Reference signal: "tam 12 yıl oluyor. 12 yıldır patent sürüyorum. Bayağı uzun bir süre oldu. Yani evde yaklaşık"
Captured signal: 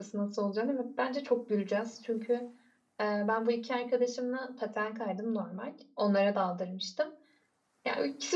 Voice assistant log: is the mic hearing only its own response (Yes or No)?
No